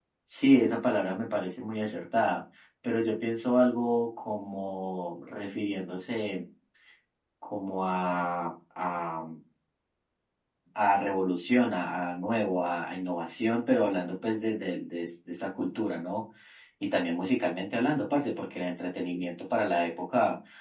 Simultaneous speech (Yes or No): No